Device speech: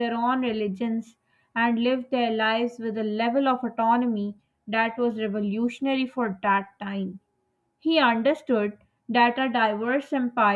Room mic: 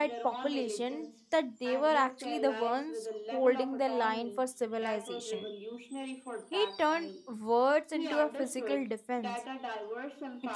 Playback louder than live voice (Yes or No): No